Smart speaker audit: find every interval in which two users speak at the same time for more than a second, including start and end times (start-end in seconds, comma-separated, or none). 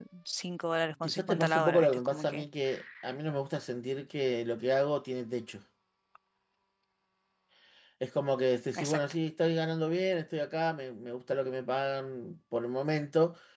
1.0-2.5